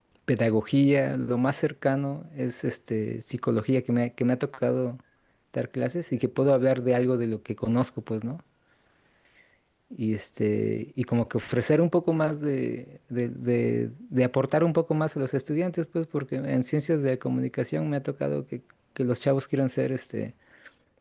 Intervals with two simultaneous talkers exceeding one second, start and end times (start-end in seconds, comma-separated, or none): none